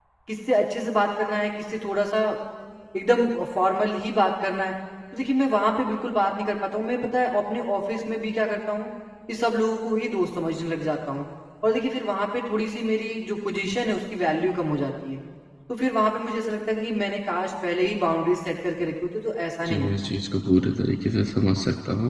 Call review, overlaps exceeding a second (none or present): none